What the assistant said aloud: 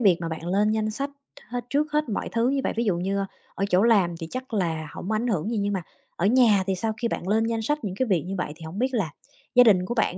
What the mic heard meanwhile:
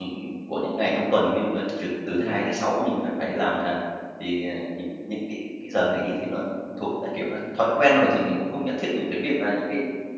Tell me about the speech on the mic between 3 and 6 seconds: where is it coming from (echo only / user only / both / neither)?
user only